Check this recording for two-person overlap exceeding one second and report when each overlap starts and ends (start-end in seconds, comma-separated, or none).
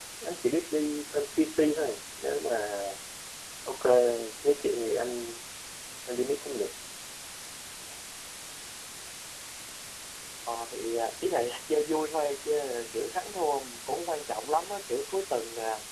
none